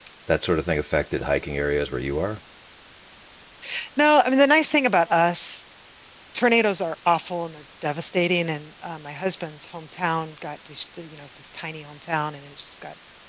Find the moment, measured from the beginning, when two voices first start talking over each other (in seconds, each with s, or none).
none